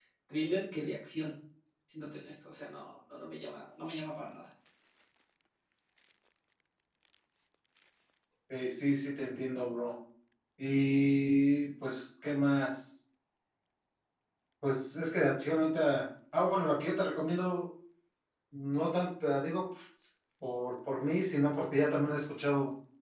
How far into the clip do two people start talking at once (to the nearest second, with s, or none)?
none